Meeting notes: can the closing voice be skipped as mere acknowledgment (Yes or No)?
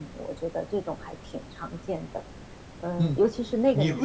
No